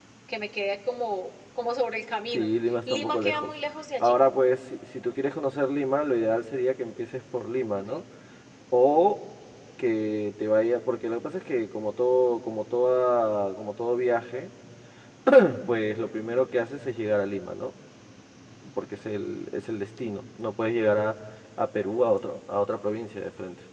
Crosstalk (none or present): present